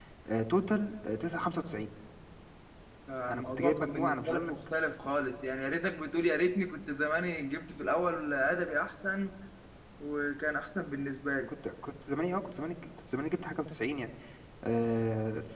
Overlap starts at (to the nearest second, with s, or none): 3 s